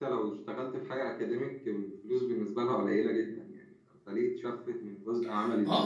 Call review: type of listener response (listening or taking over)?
taking over